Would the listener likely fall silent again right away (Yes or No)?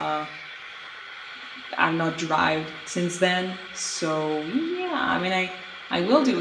Yes